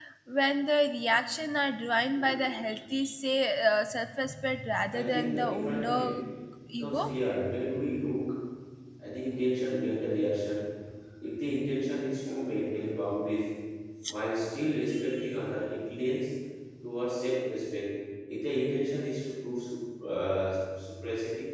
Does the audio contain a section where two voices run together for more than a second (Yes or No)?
Yes